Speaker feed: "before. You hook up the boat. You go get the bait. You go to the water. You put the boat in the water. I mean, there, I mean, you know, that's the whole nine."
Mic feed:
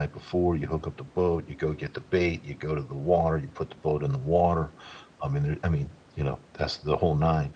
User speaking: No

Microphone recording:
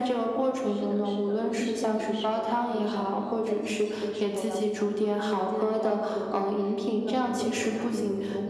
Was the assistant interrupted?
No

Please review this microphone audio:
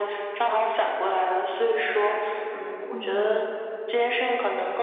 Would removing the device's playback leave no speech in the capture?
No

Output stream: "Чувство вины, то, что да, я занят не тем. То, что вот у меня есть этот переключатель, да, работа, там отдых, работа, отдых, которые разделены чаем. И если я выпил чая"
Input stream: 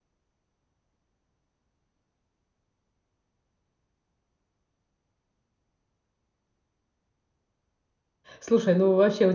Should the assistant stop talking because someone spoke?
Yes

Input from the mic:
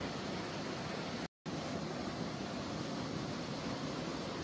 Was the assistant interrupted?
No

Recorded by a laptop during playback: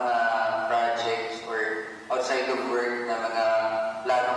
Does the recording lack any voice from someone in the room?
Yes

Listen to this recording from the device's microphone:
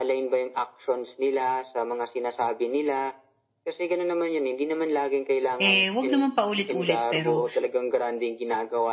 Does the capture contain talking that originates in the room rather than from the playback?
Yes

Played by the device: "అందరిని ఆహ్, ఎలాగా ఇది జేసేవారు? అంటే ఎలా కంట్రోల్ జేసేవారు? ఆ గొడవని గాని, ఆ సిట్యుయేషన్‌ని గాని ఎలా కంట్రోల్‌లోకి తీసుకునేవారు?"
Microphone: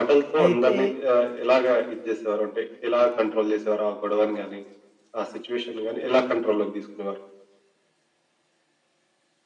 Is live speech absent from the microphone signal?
No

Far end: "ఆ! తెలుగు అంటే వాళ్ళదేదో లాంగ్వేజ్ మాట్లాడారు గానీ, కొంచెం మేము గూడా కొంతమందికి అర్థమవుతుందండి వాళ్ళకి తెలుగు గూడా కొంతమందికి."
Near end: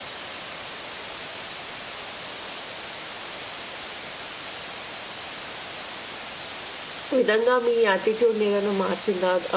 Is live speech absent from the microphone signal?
No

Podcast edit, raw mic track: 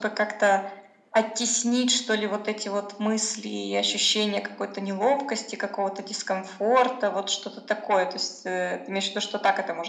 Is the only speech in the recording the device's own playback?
Yes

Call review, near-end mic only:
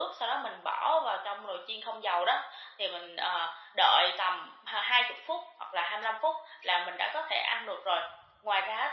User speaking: No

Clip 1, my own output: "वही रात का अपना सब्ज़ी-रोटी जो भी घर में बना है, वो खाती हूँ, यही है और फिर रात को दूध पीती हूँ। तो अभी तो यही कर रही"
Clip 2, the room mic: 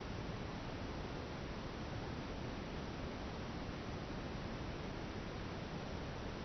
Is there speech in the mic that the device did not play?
No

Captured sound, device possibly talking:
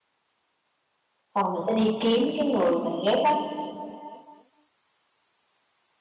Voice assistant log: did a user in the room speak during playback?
Yes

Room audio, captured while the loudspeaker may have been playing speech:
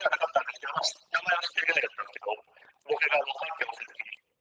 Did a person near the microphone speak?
No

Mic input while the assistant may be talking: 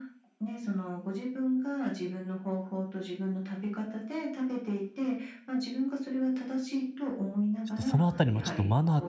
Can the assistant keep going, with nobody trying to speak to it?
No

